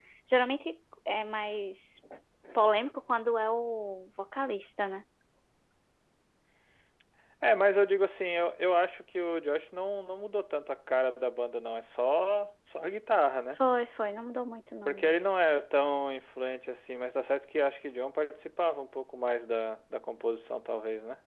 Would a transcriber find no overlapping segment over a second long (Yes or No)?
Yes